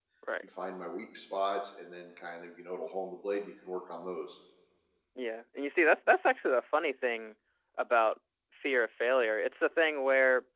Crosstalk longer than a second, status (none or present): none